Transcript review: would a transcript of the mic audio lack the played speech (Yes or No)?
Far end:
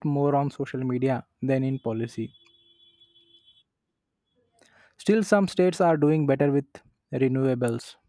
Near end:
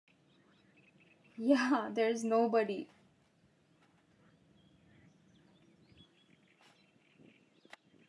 Yes